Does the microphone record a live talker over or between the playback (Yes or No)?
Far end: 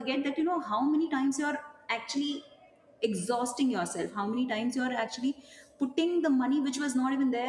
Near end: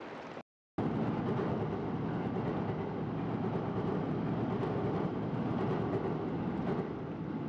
No